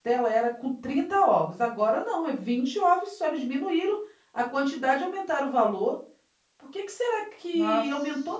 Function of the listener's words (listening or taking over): listening